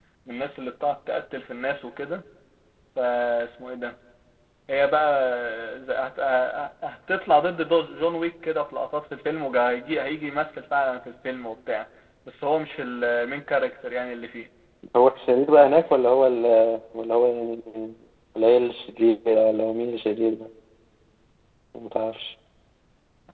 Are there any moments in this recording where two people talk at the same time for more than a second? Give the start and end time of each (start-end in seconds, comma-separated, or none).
none